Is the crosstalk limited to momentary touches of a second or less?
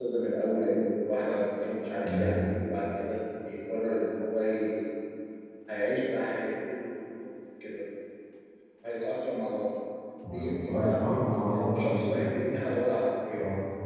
No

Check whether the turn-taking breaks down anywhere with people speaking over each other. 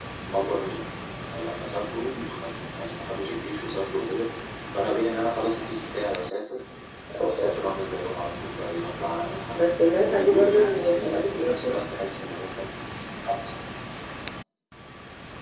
Yes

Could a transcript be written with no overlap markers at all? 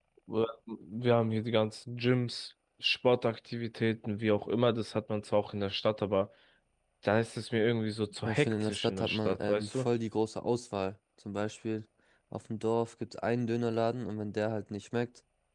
No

